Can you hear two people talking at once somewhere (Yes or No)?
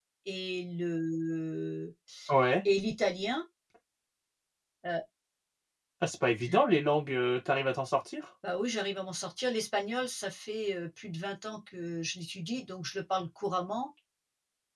No